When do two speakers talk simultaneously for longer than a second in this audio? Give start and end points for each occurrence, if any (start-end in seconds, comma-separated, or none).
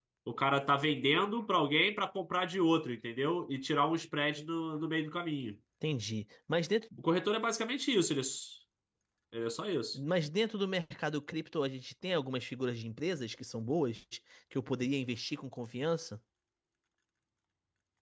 none